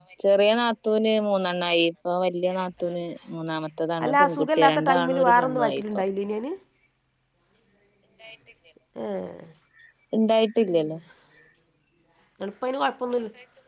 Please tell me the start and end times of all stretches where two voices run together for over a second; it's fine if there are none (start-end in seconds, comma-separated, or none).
4.0-5.8